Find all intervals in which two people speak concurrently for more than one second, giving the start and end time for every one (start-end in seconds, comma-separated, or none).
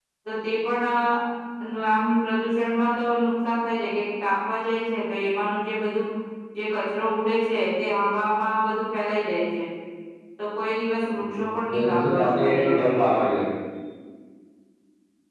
11.7-13.0